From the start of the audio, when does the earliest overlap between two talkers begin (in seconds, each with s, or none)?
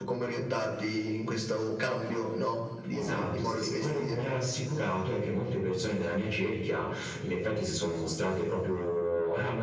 2.9 s